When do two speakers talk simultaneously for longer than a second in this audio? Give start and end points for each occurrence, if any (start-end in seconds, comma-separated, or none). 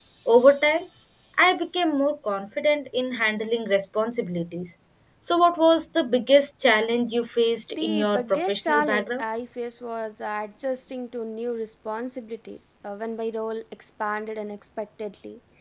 7.7-9.2